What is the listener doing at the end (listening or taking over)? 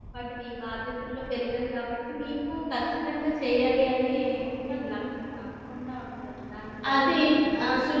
taking over